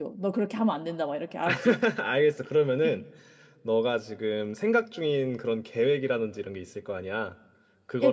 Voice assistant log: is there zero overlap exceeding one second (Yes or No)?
Yes